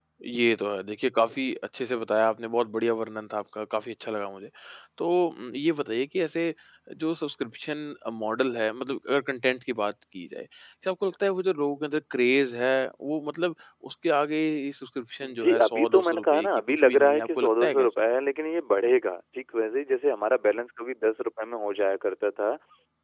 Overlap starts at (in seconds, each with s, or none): 15.2 s